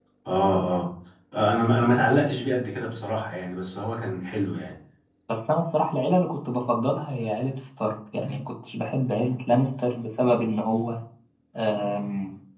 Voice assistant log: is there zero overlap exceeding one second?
Yes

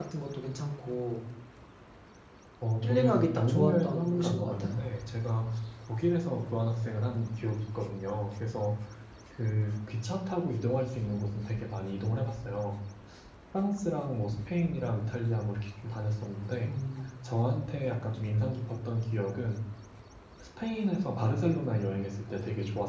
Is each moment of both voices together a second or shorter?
No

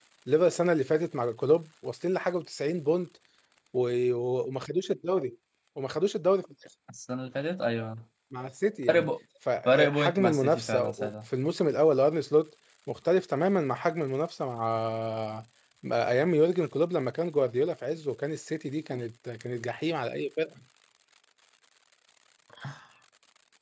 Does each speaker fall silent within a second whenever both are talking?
No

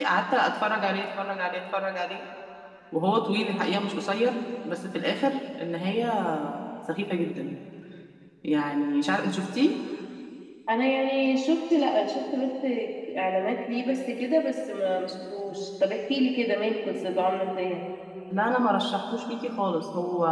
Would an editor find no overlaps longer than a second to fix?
Yes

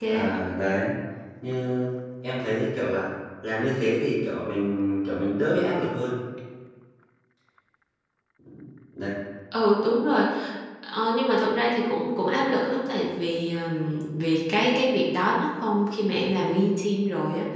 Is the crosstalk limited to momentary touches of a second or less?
Yes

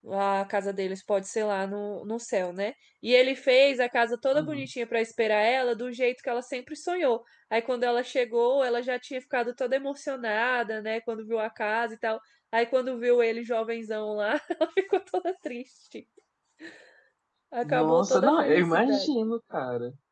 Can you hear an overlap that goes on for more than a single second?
Yes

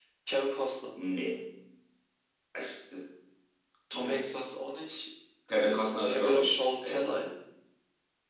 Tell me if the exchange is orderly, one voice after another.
No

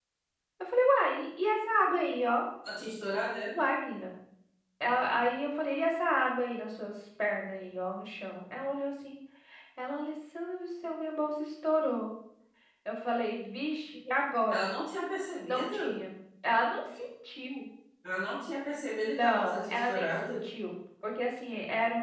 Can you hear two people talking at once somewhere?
Yes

